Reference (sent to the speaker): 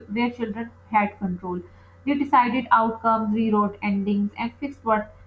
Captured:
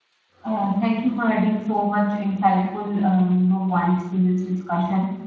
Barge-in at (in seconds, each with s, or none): 0.4 s